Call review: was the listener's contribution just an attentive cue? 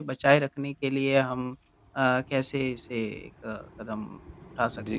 No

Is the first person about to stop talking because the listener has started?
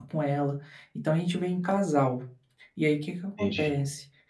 No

